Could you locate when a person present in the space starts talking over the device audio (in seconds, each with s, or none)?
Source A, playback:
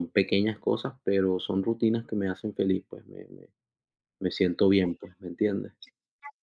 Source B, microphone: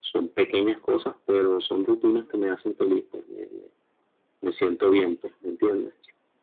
none